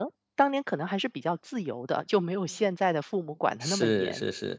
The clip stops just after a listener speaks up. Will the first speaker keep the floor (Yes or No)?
No